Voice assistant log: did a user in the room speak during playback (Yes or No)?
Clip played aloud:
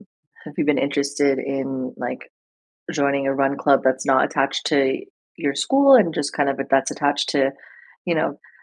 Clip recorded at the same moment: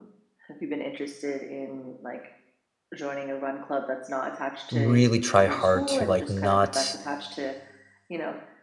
Yes